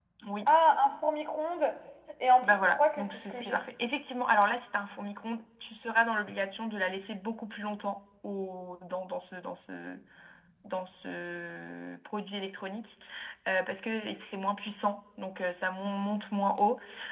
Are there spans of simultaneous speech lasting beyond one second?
Yes, from 2.4 s

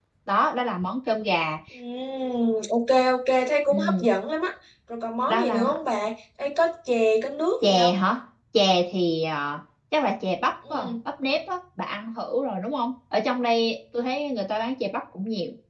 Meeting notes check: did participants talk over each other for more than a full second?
No

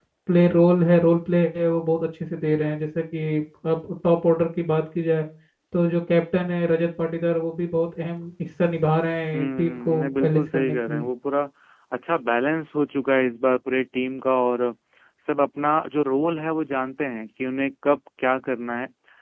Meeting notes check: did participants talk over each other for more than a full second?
Yes, from 9.3 s

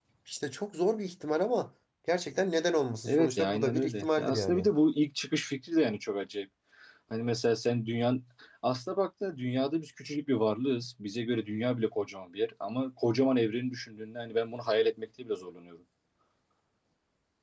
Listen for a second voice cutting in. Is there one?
Yes, from 3.0 s

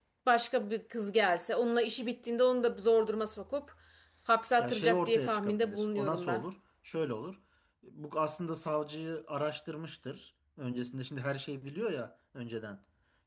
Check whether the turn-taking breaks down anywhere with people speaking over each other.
Yes, from 4.6 s

